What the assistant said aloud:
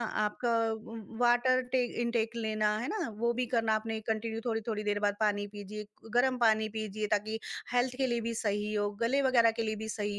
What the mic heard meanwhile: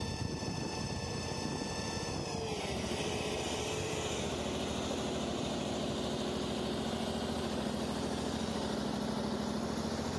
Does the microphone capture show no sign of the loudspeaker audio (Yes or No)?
Yes